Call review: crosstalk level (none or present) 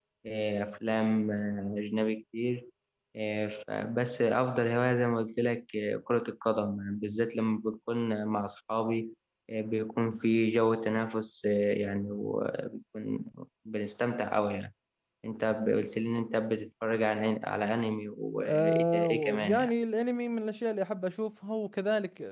present